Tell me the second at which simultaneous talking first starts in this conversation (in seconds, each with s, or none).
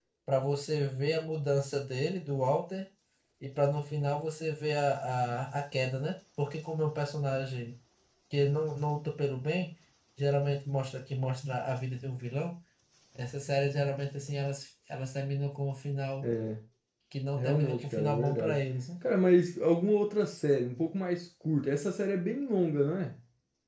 17.4 s